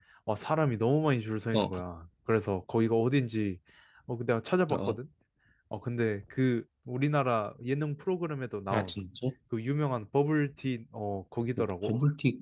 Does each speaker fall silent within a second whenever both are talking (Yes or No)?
Yes